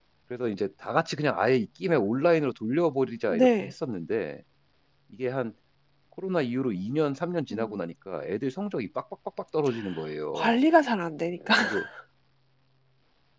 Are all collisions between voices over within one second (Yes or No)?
Yes